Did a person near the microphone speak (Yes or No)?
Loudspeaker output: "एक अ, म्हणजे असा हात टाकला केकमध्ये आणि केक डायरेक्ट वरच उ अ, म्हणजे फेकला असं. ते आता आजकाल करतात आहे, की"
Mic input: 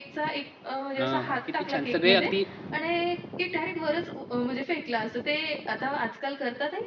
Yes